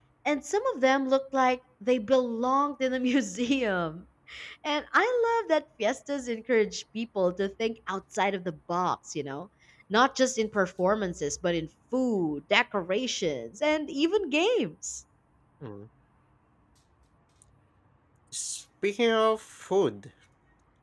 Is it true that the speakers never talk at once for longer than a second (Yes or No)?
Yes